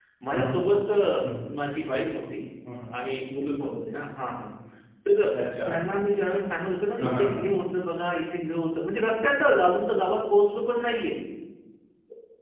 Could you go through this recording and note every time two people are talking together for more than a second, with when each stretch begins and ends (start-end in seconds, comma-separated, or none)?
none